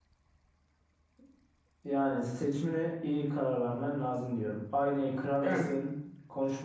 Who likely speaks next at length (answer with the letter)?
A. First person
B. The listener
A